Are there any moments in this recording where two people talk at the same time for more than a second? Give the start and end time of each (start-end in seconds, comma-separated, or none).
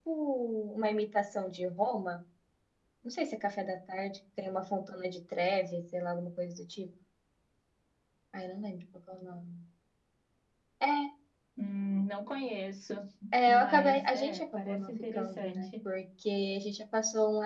13.5-15.7